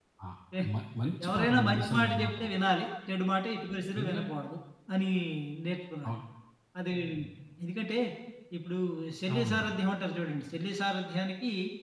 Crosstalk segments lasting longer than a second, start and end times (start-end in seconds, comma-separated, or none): 1.2-2.5